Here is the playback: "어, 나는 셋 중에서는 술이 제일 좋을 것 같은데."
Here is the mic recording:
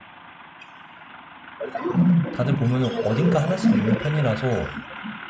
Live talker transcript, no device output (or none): 다들 보면은 어딘가 하나씩 있는 편이라서